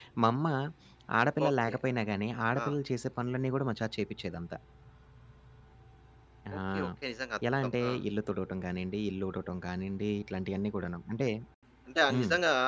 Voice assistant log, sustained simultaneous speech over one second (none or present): none